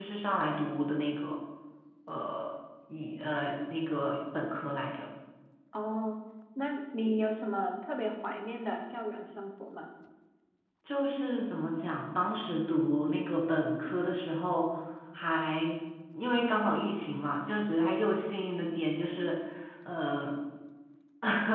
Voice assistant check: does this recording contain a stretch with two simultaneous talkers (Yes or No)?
No